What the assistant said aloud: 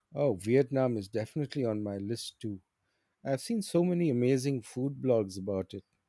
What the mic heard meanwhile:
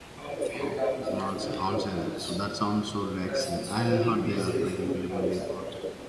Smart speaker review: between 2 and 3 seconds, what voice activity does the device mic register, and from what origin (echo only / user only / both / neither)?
both